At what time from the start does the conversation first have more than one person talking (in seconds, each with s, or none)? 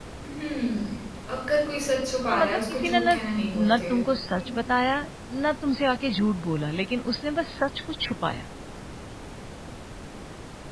2.3 s